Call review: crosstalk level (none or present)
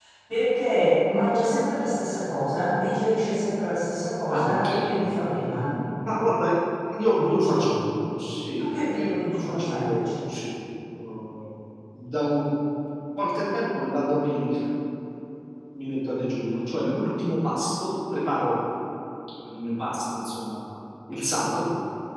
present